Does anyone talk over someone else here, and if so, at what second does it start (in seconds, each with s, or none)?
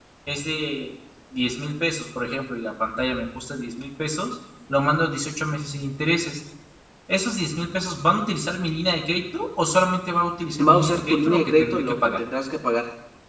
10.6 s